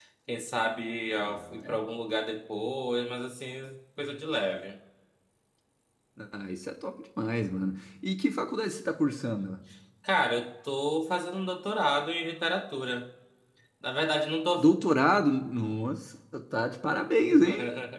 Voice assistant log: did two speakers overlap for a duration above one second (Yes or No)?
No